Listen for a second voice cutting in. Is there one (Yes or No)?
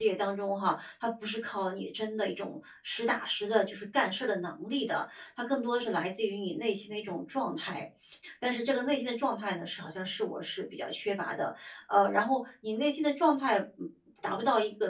No